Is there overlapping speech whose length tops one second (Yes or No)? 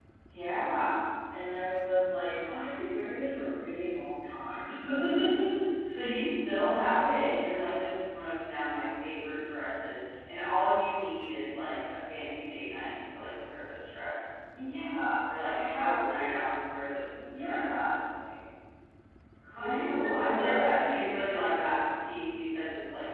Yes